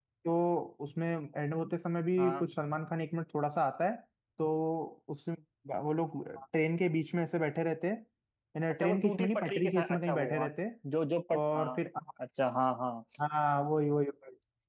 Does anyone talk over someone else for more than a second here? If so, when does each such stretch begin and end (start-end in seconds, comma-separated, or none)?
8.8-10.5